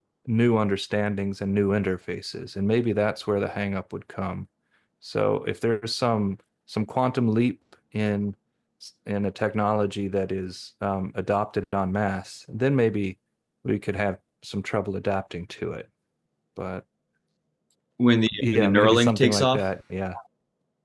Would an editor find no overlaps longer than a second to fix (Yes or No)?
No